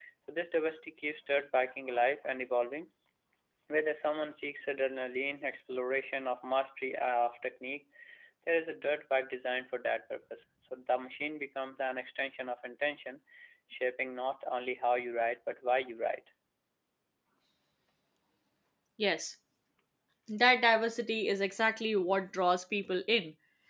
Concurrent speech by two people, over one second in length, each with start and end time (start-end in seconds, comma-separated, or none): none